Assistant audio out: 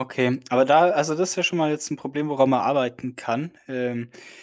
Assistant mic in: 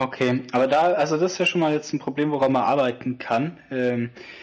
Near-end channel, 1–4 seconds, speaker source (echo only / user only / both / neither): echo only